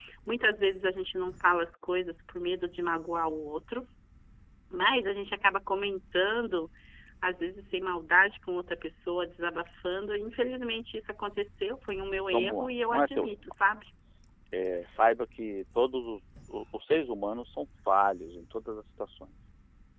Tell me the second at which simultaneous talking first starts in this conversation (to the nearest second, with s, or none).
12 s